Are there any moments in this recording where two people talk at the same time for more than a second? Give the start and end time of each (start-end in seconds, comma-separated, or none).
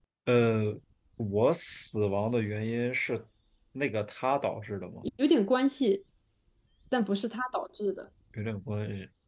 none